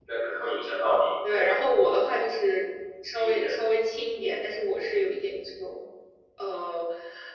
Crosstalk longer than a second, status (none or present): none